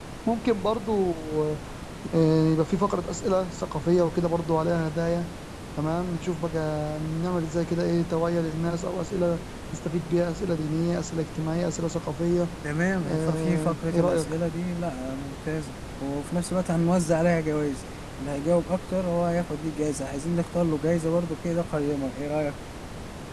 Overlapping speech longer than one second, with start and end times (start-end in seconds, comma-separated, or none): 13.0-14.3